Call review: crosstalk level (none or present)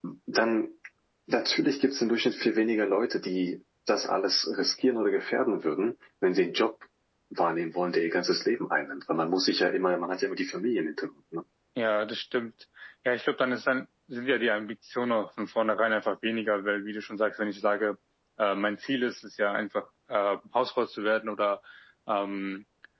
none